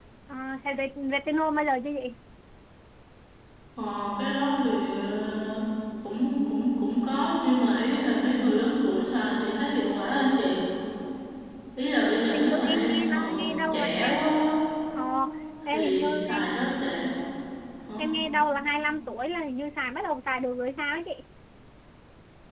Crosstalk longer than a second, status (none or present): present